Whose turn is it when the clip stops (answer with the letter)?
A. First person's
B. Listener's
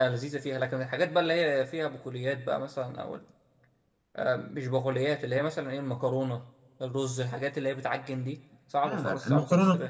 B